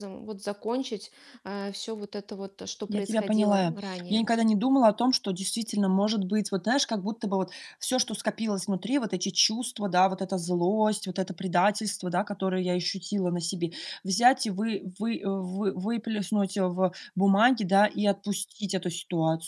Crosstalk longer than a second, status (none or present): present